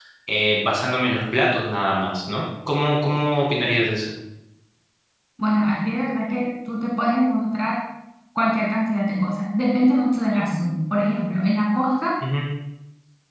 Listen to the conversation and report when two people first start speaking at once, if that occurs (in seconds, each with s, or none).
none